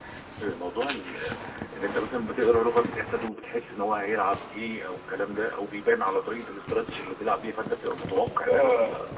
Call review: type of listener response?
taking over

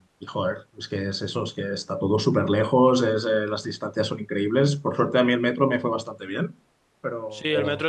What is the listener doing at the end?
taking over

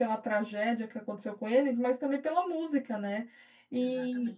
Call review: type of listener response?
listening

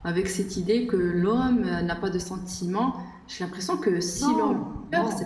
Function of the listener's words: taking over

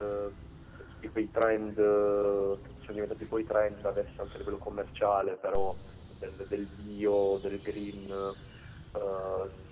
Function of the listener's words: listening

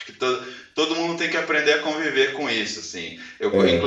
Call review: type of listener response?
listening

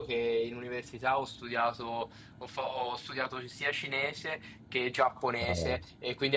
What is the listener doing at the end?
listening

